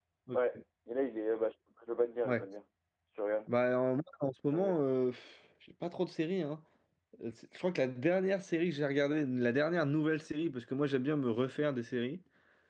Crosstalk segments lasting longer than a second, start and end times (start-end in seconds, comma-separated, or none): none